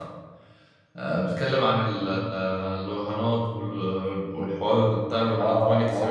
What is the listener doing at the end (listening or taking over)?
taking over